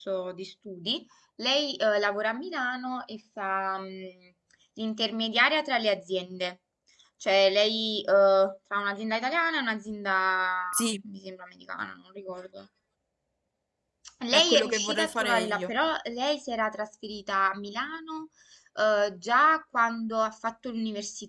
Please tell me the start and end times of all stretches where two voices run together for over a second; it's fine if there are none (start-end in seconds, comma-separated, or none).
14.3-15.7